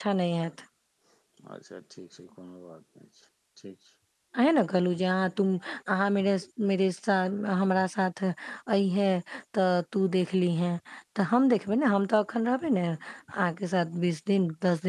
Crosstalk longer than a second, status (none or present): none